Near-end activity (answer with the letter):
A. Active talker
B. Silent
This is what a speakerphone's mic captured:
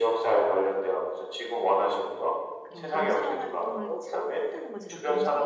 A